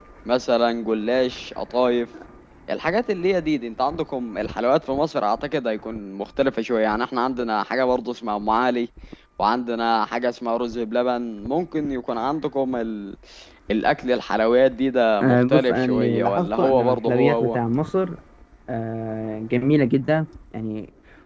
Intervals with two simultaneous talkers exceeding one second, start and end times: 15.2-17.6

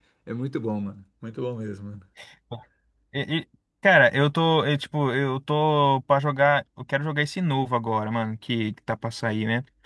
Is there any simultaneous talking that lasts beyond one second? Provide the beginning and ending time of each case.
none

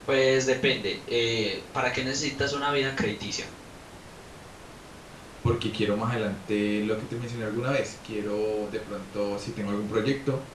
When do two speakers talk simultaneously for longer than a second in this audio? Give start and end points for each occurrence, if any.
none

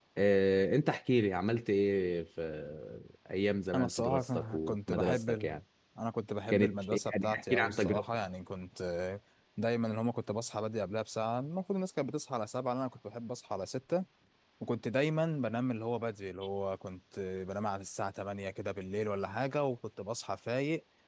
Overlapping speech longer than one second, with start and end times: 3.7-5.6, 6.5-8.2

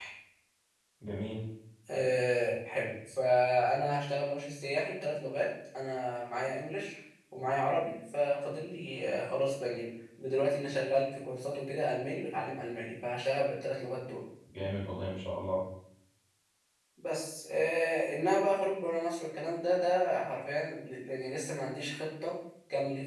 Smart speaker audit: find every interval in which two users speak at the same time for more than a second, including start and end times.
none

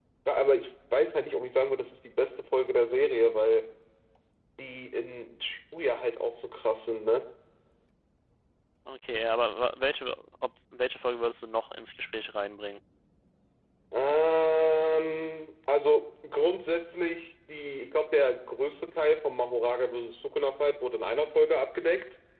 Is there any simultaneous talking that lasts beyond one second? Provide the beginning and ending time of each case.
none

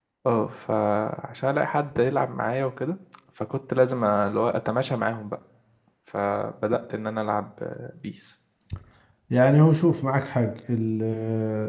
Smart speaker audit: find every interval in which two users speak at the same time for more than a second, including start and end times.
none

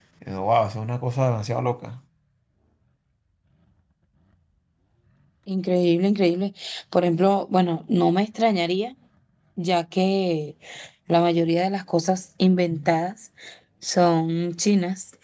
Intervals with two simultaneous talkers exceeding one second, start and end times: none

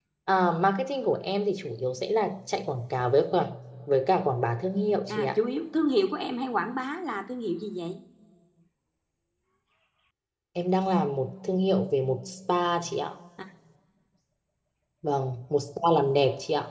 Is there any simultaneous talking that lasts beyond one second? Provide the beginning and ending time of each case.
none

